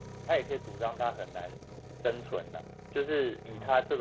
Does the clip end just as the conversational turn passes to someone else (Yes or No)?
No